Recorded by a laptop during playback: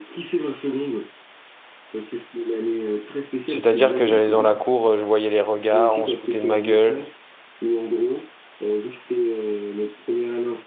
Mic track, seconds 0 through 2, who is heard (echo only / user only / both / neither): echo only